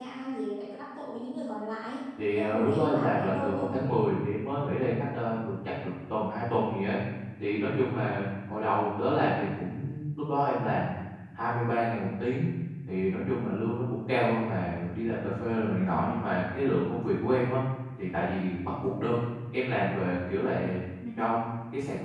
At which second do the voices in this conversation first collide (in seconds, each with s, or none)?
2.1 s